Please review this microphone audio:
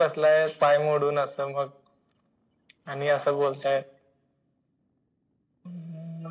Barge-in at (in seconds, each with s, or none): none